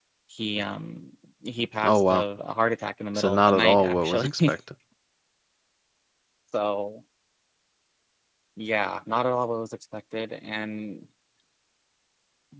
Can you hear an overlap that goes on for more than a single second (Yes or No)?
Yes